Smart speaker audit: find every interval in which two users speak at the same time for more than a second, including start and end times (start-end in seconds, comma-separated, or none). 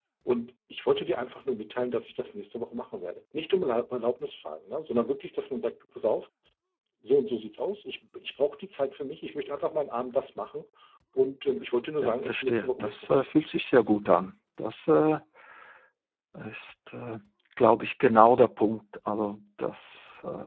12.0-13.3